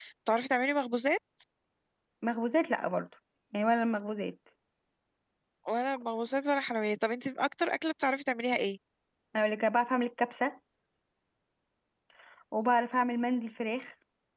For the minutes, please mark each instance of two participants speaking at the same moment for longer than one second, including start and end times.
none

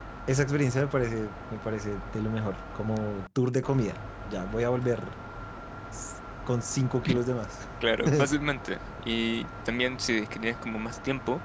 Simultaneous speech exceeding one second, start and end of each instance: none

